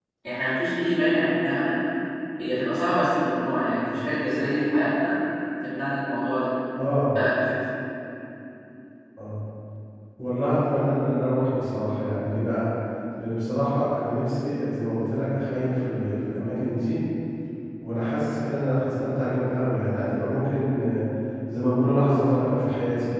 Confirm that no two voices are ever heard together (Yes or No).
Yes